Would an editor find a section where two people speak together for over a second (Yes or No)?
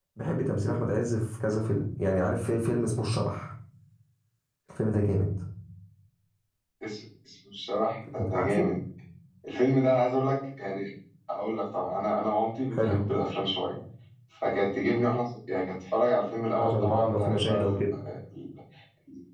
Yes